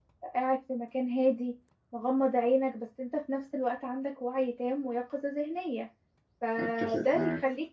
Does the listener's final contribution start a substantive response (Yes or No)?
No